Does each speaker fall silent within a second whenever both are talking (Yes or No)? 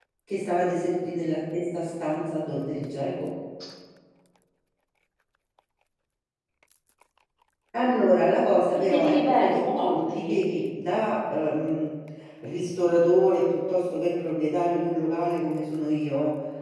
No